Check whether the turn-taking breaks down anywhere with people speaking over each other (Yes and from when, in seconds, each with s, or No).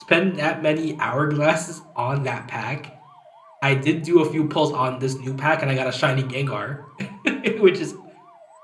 No